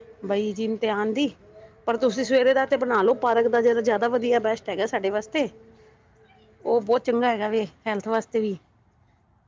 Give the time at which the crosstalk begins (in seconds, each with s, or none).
none